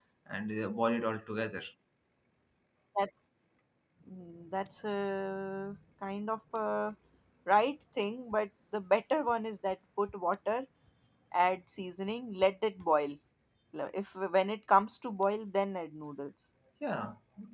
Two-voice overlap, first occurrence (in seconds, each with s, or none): none